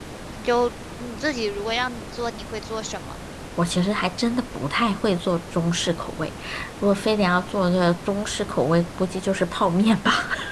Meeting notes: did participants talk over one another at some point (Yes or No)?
No